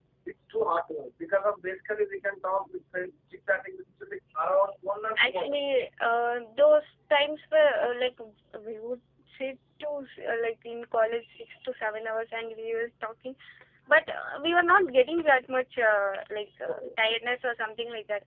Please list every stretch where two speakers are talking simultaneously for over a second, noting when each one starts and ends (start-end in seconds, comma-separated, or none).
none